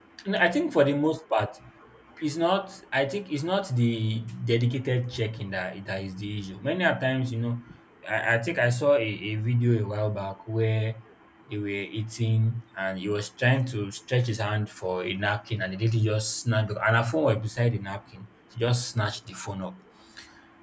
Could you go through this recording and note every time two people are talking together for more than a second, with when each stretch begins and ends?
none

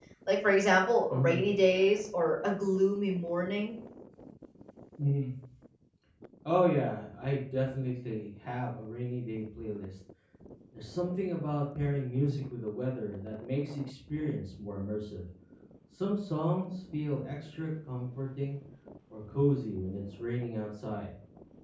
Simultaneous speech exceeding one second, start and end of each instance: none

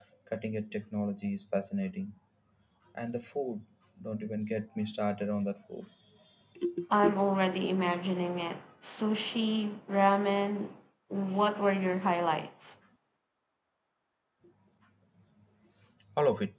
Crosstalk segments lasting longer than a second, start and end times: none

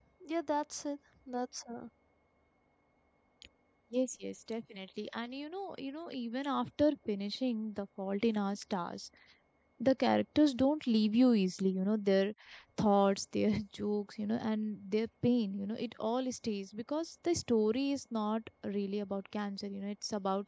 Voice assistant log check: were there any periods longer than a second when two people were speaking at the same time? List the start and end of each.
none

